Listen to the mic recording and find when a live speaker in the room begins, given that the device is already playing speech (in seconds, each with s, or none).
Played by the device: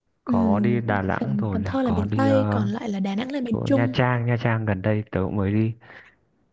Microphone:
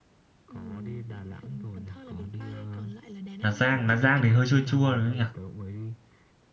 3.4 s